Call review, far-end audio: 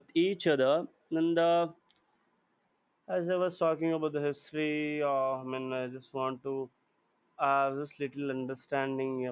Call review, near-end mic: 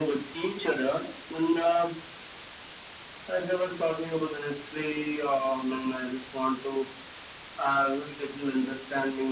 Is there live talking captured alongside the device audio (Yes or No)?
No